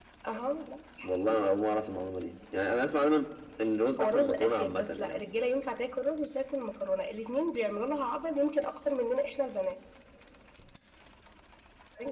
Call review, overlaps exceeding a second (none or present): present